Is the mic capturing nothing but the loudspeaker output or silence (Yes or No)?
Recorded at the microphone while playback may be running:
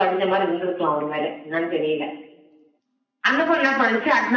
Yes